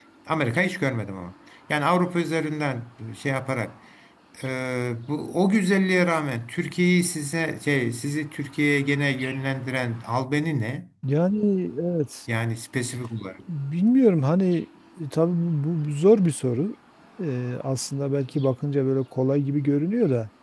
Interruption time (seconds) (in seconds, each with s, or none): none